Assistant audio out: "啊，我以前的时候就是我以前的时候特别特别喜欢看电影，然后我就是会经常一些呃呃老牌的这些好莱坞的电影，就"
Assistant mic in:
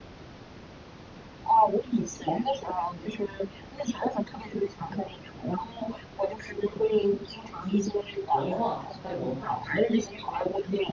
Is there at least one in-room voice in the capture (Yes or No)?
Yes